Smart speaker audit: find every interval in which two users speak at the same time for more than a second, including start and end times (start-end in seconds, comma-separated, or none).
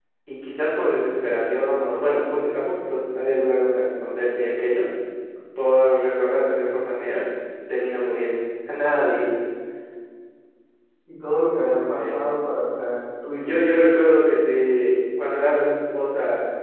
none